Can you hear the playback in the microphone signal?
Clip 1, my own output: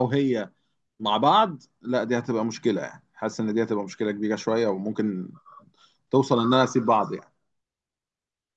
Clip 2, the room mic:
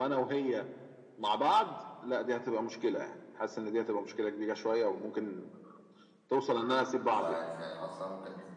Yes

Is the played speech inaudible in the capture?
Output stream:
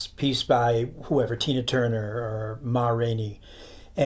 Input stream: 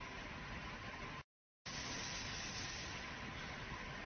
Yes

